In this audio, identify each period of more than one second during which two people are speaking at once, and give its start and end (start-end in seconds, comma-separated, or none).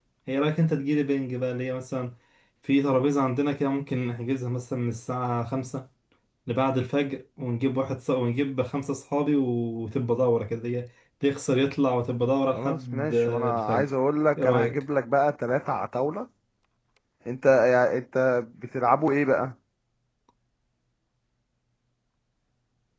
12.5-13.9